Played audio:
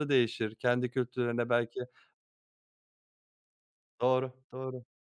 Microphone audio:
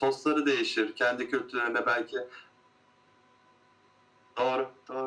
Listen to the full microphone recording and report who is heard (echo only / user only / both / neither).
echo only